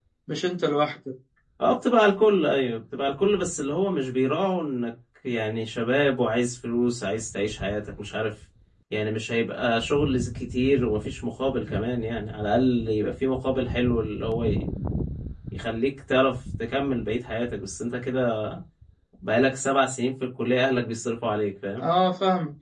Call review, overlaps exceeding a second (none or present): none